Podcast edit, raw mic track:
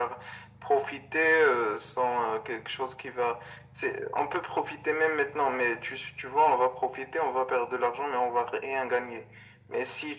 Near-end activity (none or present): none